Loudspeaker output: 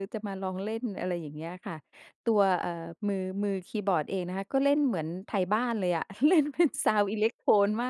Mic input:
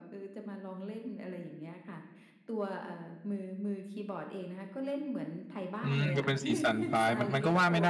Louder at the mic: user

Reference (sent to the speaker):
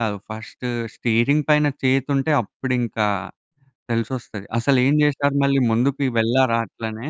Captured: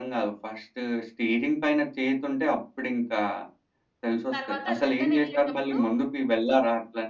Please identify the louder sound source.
echo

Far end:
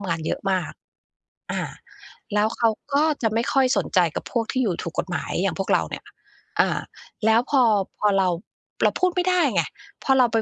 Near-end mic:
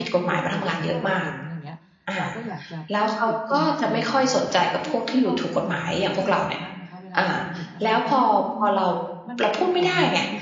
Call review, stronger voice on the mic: echo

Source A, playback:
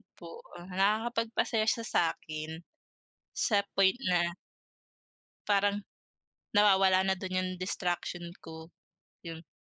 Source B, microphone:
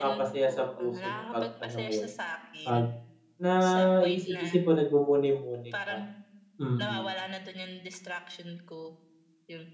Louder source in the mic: user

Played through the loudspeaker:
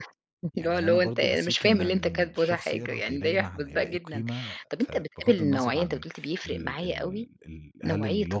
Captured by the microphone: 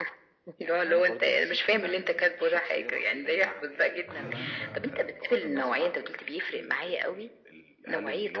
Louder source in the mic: echo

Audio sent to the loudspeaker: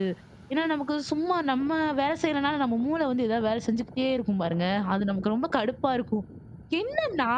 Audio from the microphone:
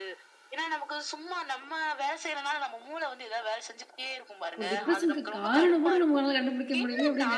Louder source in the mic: user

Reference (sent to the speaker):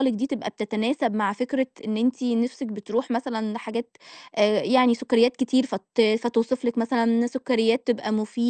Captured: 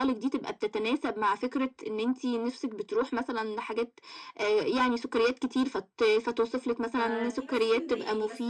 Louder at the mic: echo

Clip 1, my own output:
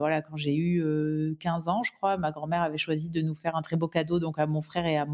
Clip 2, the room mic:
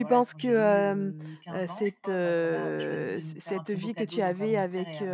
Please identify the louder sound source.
user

